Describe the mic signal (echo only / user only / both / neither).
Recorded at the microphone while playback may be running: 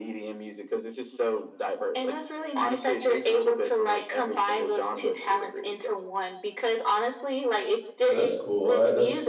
both